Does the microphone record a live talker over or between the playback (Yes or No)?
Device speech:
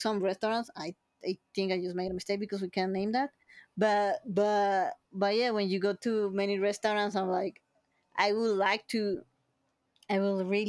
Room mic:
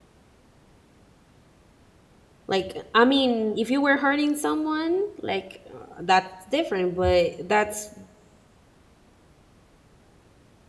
Yes